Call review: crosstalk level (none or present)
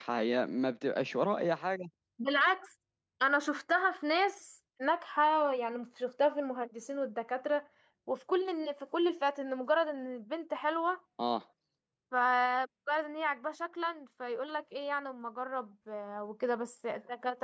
none